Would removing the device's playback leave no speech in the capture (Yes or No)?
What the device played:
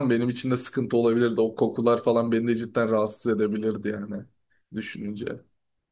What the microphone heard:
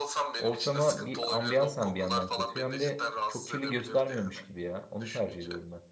No